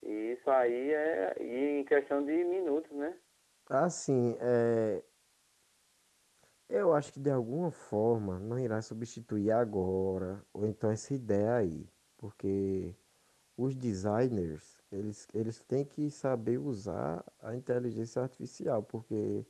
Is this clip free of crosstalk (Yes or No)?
Yes